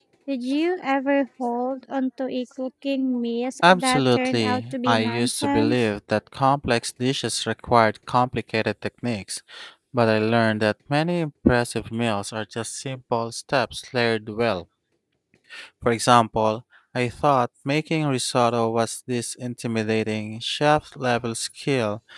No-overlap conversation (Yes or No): No